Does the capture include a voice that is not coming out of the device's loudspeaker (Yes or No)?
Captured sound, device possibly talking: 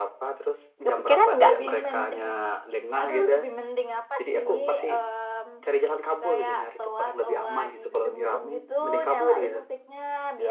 Yes